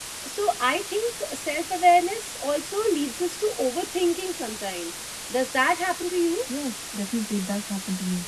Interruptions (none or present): none